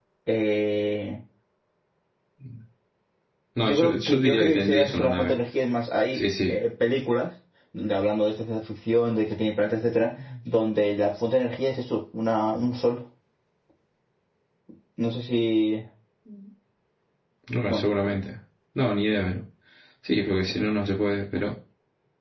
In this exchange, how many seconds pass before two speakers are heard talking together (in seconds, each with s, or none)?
3.6 s